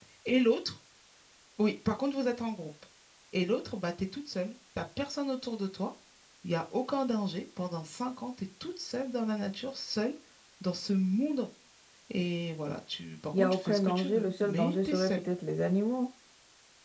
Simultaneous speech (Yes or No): Yes